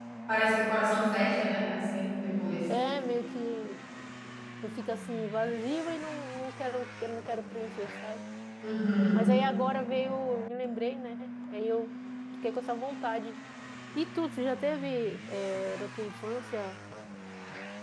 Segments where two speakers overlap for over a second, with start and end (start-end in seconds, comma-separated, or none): none